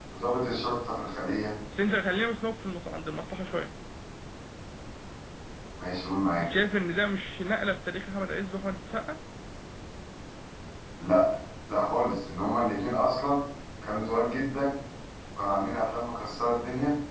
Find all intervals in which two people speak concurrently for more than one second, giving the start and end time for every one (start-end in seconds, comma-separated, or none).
none